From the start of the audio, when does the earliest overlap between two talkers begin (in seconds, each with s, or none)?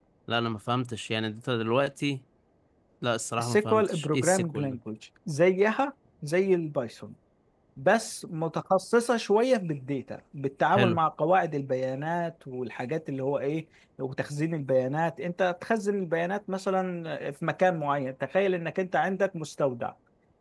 3.4 s